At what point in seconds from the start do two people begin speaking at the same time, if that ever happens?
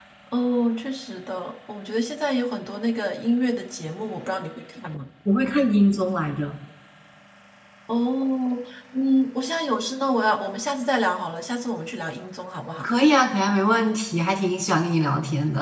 none

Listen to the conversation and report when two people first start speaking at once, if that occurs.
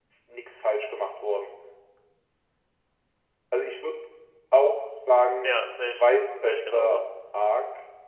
5.4 s

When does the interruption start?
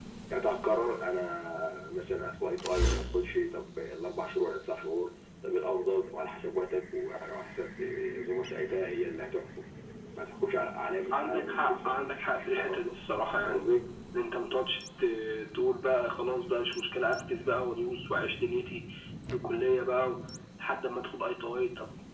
11.1 s

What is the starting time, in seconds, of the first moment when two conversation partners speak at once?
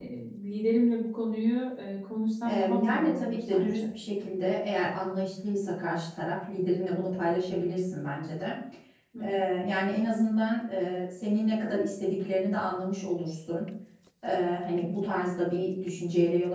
2.4 s

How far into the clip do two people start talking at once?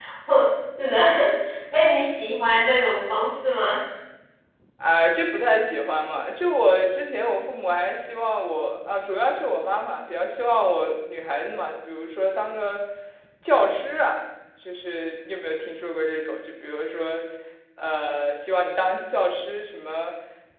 none

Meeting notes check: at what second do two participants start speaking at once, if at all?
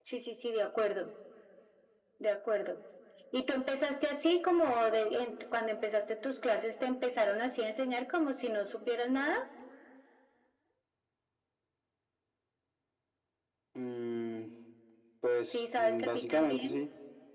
15.5 s

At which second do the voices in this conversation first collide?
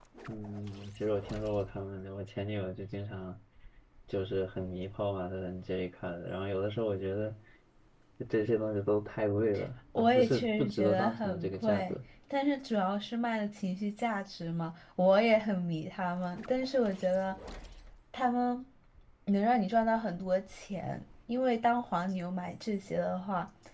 10.0 s

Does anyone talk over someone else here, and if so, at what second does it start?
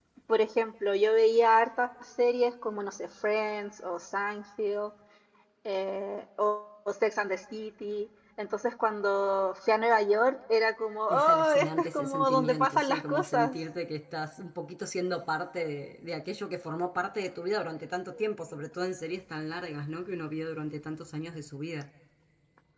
11.1 s

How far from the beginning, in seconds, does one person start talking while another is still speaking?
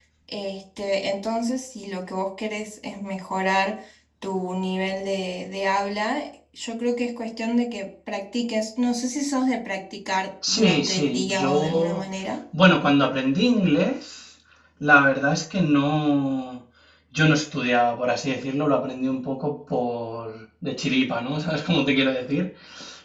10.4 s

